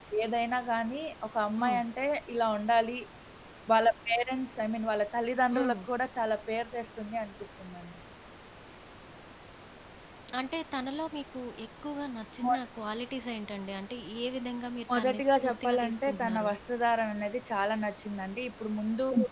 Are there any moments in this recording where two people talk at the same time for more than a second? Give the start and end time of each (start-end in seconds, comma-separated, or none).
14.9-16.5